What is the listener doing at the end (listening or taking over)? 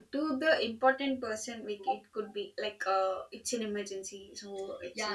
taking over